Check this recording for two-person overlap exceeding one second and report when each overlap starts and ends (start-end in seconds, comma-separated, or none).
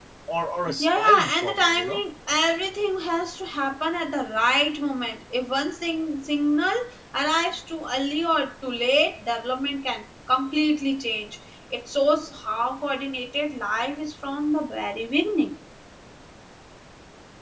0.8-2.0